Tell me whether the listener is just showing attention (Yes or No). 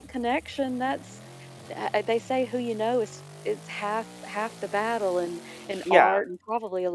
Yes